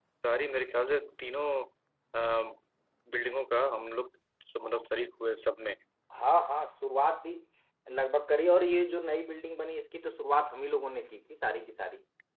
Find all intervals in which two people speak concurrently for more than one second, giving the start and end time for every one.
none

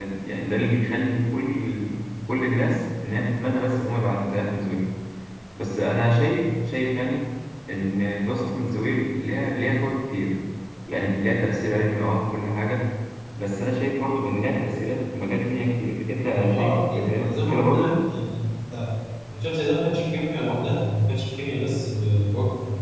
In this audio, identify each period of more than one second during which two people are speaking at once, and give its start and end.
16.3-17.9

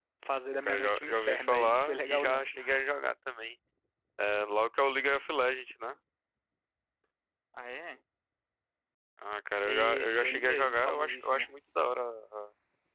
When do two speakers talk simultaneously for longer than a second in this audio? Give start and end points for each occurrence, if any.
0.6-2.5, 9.7-11.5

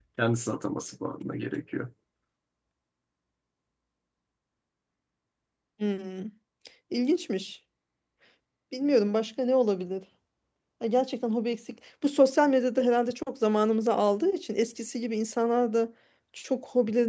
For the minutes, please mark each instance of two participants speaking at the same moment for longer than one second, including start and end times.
none

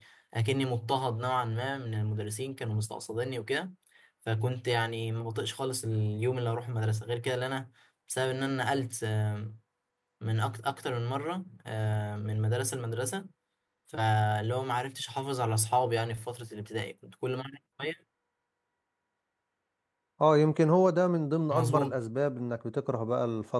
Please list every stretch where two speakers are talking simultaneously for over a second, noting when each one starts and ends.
none

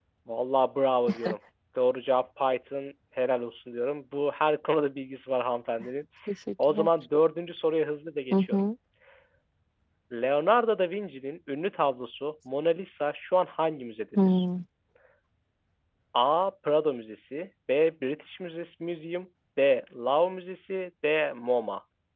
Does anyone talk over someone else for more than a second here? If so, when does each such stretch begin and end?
none

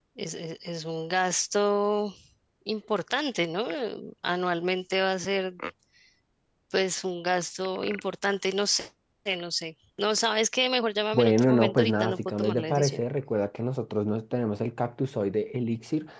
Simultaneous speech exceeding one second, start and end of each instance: 11.1-13.0

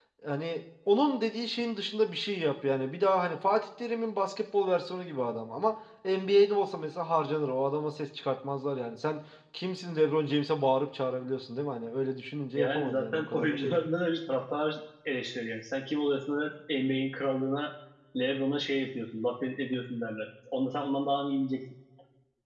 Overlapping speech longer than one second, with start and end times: 12.5-13.8

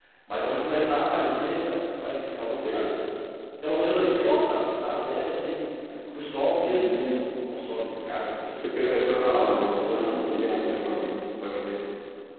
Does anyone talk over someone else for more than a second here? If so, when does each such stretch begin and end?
8.6-11.1

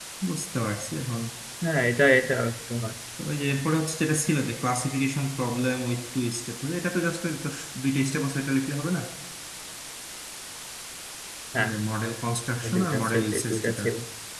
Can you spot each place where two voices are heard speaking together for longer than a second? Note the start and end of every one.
12.6-13.8

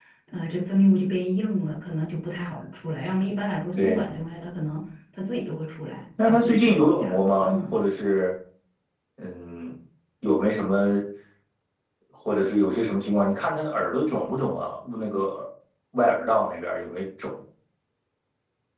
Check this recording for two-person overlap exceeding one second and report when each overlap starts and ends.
6.3-7.9

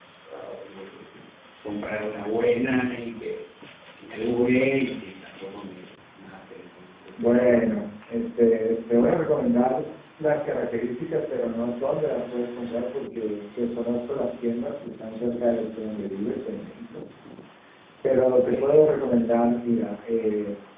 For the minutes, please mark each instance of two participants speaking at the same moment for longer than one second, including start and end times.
none

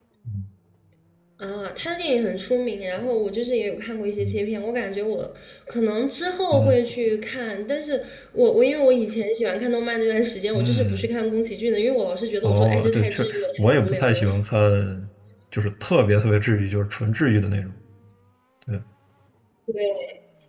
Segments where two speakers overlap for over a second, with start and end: 12.4-14.2

